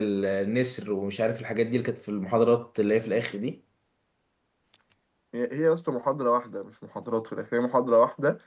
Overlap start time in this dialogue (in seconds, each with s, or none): none